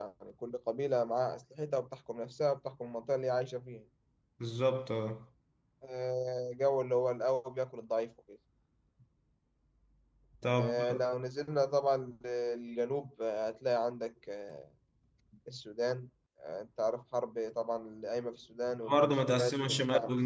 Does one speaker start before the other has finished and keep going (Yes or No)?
Yes